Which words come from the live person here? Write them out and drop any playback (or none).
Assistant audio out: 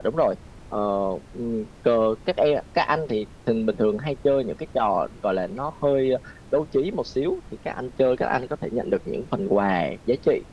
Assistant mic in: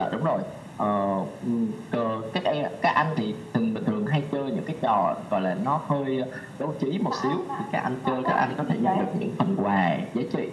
mã mã mã quét cái gì gì đấy